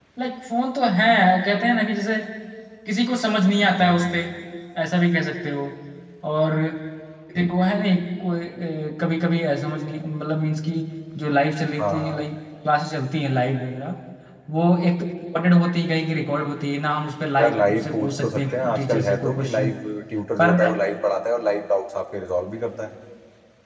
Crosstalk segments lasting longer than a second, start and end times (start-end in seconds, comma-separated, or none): 17.4-19.7